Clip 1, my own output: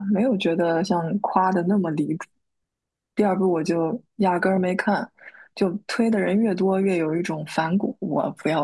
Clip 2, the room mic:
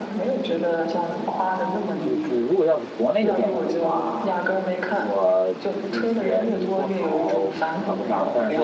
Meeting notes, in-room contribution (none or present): present